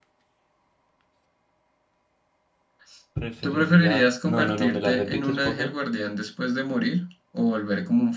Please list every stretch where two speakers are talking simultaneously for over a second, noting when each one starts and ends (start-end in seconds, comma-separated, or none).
3.4-5.7